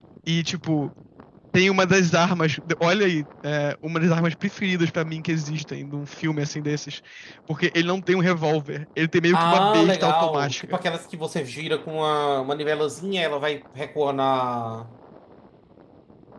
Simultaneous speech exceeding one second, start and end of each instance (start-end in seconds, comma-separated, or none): 9.3-10.8